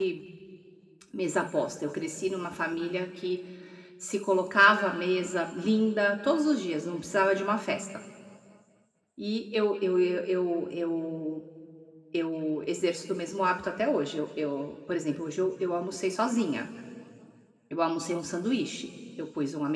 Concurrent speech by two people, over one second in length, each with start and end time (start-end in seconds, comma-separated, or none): none